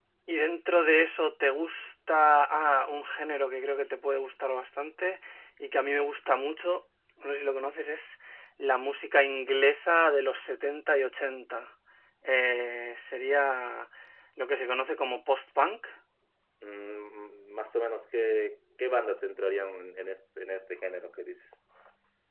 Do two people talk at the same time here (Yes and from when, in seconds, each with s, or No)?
No